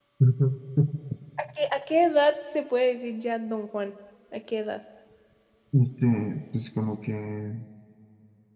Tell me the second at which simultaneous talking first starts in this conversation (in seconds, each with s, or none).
none